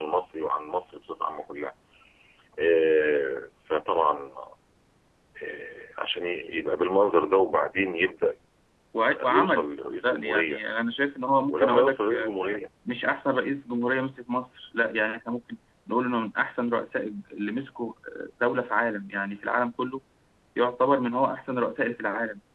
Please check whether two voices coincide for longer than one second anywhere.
Yes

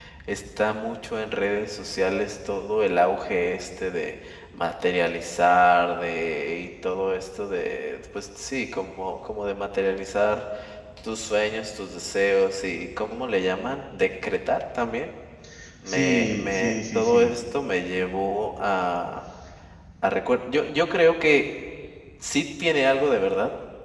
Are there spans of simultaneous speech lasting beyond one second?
Yes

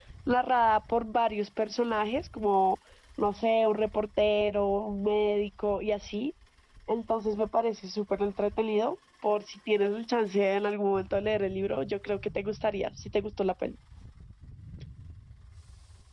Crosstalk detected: No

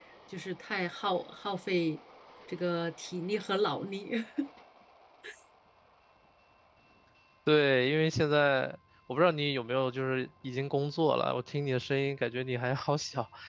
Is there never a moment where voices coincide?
Yes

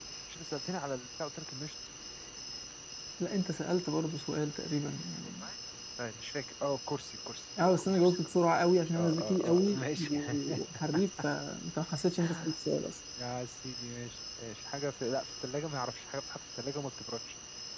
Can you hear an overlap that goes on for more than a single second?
Yes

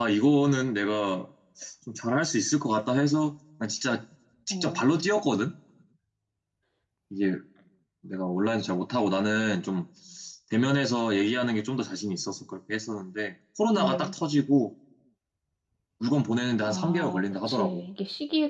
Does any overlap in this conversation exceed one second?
Yes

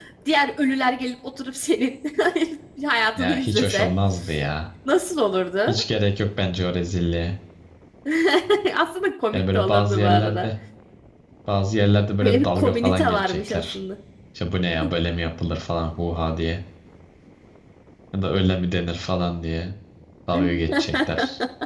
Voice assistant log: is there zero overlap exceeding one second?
No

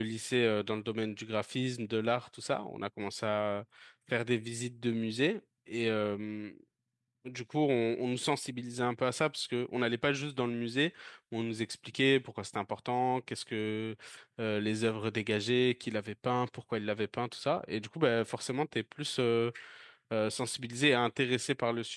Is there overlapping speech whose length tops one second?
No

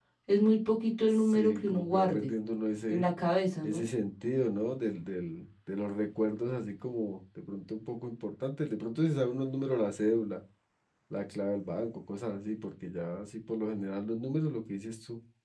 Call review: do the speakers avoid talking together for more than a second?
No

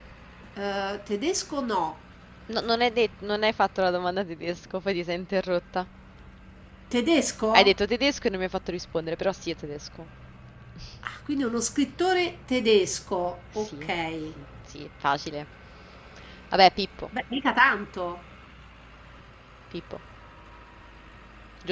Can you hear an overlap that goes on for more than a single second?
No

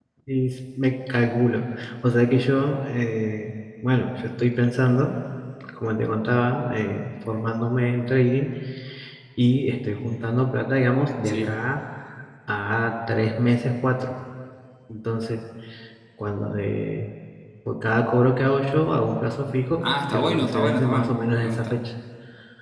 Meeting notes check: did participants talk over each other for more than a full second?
Yes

